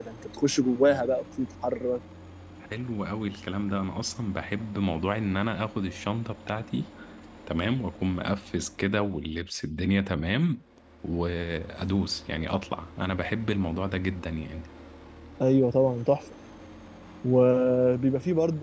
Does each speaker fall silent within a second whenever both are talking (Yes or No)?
Yes